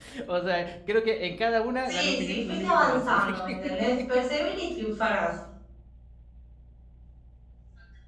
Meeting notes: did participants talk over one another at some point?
Yes, from 1.9 s

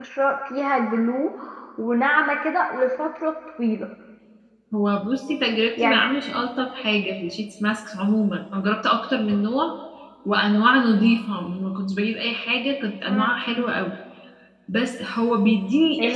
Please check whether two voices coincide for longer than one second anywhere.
No

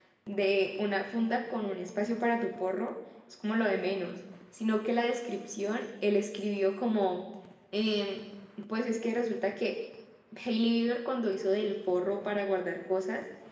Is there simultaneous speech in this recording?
No

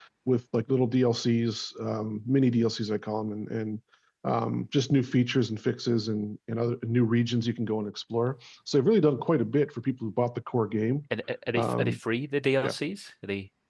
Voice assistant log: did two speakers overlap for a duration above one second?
No

